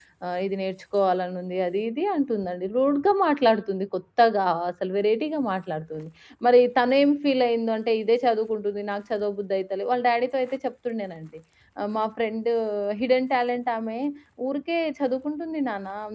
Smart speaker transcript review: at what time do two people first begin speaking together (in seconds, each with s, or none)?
none